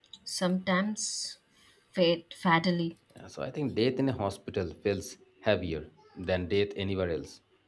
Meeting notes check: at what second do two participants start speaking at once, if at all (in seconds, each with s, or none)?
none